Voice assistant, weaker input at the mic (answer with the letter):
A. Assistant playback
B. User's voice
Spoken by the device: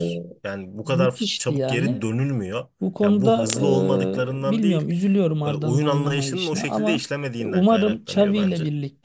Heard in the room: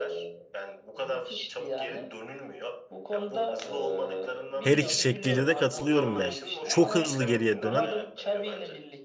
A